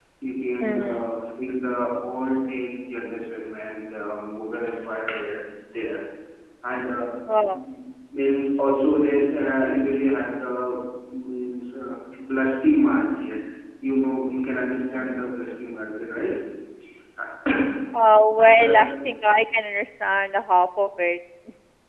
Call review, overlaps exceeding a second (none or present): none